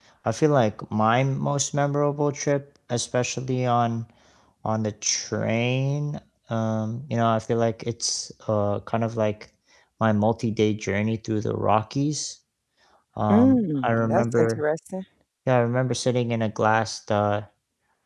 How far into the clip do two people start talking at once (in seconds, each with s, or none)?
13.3 s